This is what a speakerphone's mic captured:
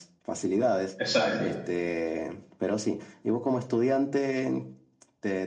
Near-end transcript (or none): Exacto.